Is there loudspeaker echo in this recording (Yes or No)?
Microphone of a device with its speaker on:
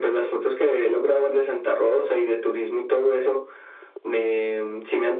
Yes